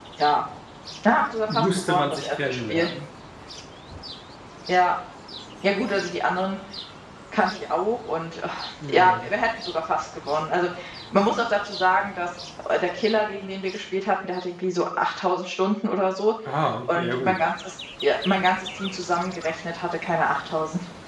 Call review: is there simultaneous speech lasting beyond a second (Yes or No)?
Yes